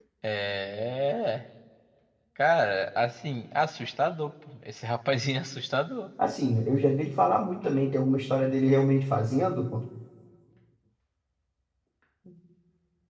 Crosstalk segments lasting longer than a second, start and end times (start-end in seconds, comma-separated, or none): none